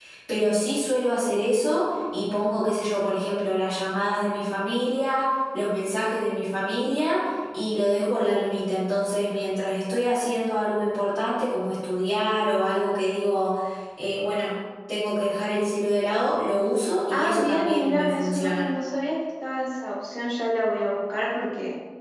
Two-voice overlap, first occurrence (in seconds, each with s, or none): 17.1 s